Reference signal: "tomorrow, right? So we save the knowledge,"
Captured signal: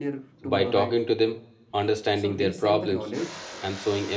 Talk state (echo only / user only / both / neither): both